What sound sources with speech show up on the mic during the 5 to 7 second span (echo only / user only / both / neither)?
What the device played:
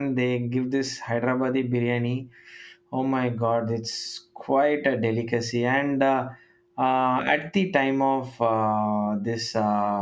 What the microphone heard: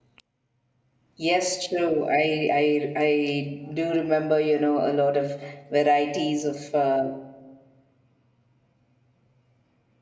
user only